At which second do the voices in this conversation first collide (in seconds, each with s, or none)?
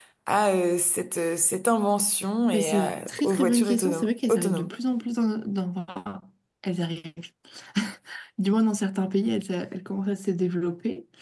2.5 s